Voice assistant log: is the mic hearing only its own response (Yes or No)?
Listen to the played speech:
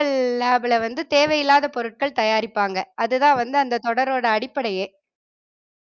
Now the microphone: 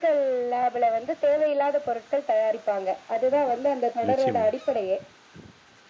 No